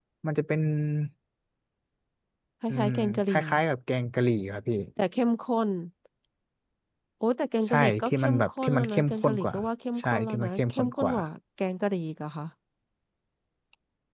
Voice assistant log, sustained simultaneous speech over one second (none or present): present